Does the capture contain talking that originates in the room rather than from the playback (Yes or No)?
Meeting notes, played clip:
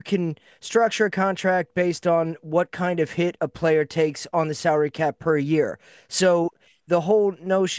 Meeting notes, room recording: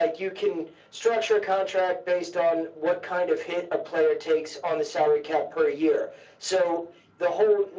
No